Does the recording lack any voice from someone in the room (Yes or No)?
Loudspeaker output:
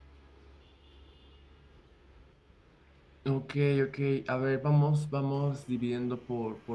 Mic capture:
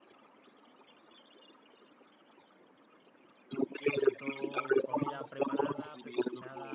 No